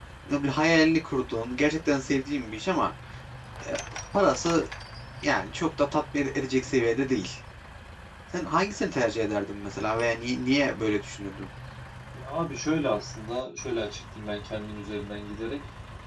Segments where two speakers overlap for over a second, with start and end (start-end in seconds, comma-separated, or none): none